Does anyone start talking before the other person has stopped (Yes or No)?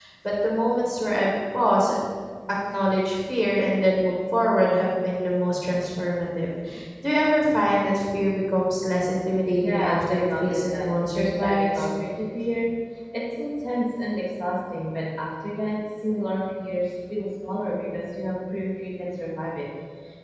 Yes